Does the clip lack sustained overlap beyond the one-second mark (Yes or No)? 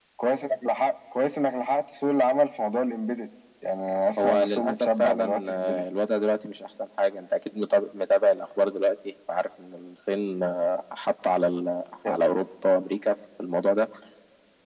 No